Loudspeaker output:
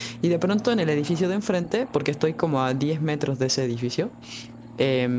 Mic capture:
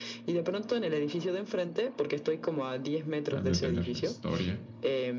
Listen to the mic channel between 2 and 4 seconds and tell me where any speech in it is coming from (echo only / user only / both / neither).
both